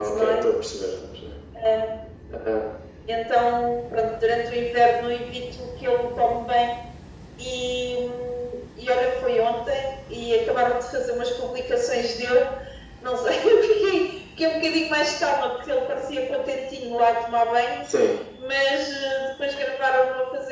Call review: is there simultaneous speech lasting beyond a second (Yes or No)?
No